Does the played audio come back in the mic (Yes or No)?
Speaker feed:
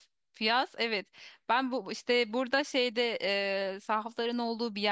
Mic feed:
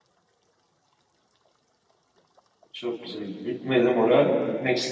No